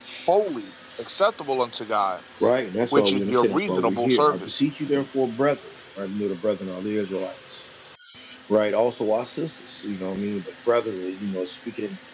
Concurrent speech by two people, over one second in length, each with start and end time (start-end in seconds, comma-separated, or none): 2.9-4.6